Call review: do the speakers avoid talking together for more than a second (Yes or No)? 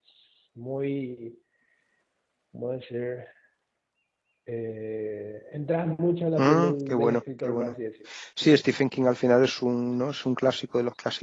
No